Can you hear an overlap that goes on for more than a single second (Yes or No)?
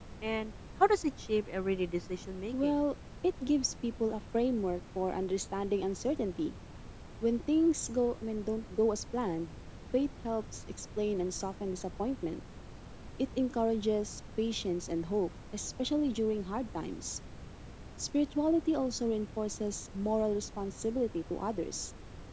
No